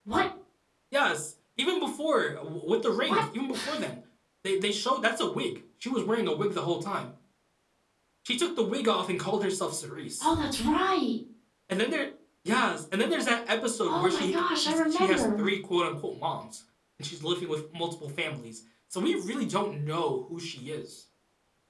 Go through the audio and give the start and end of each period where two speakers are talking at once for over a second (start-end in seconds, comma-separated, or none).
13.8-15.5